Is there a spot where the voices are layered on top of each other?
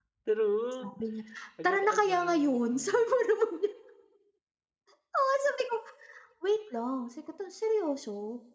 Yes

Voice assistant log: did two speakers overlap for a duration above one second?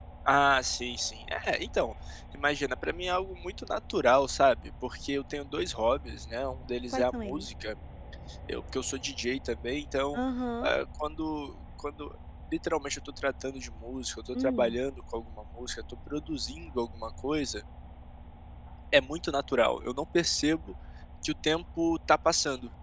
No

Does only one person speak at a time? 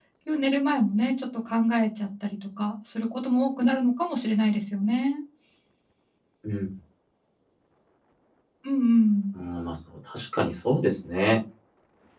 Yes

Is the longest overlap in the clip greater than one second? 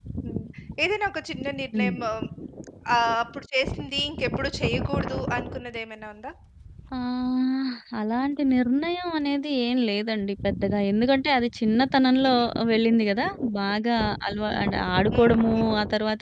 No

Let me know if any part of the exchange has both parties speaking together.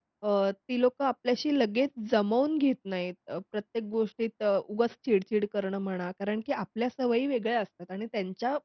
No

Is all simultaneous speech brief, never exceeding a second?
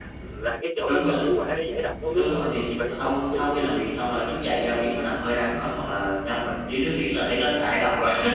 No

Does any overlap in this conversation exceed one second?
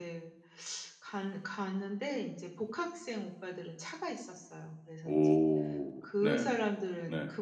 No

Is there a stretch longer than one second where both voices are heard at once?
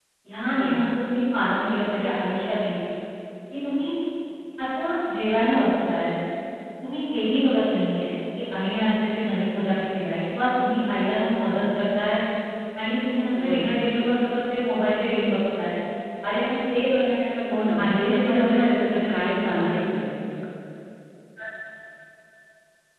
Yes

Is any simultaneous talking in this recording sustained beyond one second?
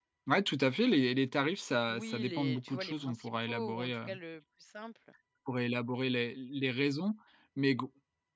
Yes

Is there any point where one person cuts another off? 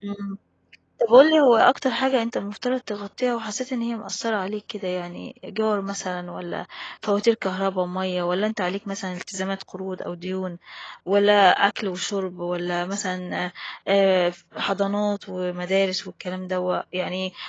No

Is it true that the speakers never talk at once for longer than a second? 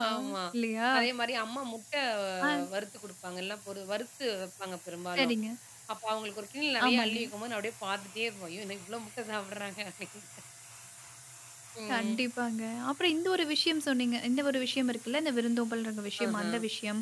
Yes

